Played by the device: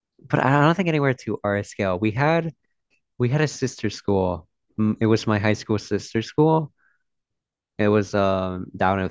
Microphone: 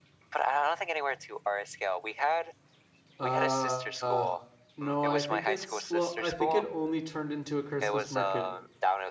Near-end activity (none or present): present